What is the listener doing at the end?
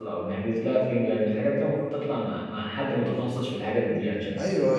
taking over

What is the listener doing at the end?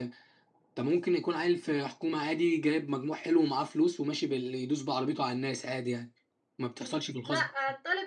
taking over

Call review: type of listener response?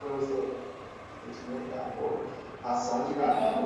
listening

